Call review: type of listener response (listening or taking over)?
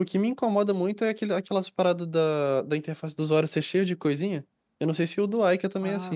taking over